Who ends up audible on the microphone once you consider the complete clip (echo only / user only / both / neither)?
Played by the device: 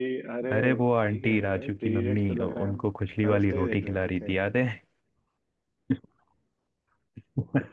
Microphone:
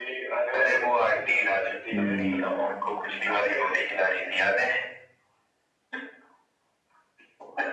both